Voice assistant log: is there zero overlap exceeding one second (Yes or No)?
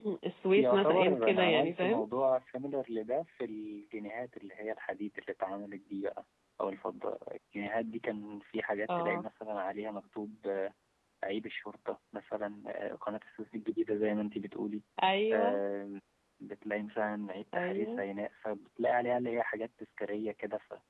No